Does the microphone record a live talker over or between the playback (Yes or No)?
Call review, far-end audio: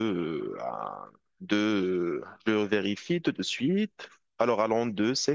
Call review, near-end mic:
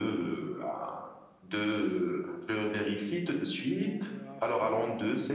Yes